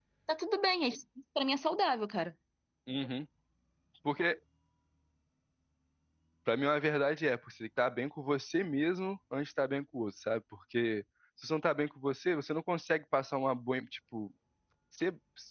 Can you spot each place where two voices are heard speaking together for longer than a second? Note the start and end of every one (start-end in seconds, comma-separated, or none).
none